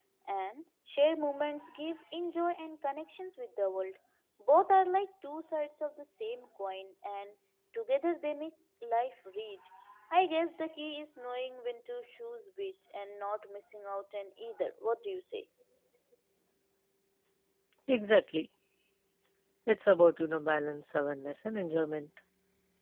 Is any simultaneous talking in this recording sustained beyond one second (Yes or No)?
No